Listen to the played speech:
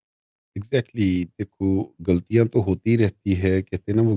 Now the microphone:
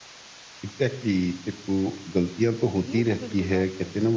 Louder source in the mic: echo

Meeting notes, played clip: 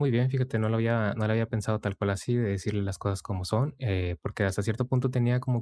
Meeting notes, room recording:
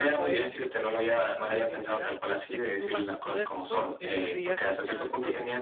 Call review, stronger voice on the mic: echo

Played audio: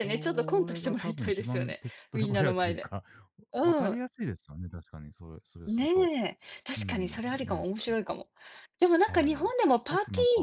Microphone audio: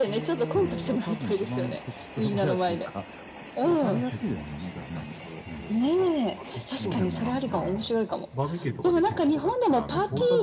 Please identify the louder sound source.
echo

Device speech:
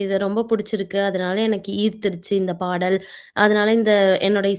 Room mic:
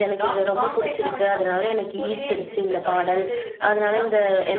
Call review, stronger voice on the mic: echo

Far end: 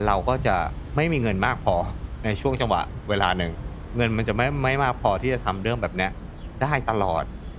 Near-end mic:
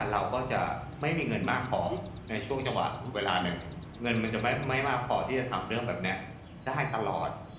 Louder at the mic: echo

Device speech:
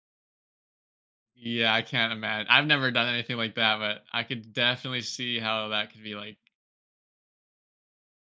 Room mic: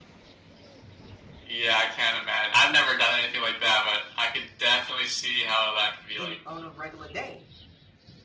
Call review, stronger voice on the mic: echo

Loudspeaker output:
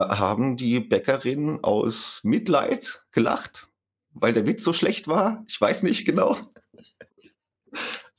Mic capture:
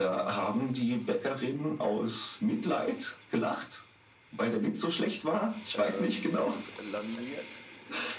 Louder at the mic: echo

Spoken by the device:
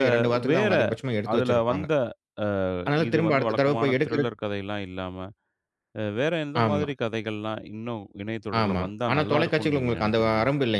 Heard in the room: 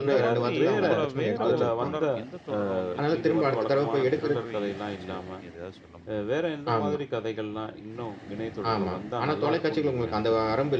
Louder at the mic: echo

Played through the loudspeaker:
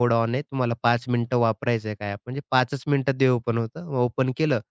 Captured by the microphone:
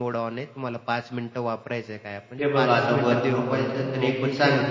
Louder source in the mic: user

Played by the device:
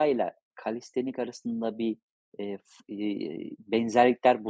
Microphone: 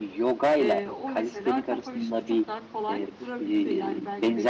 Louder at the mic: echo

